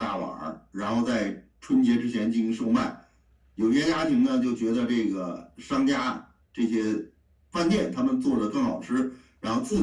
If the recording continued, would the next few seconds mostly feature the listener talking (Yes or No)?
No